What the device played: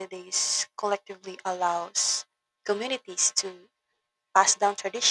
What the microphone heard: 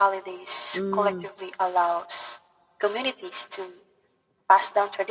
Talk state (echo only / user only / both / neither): both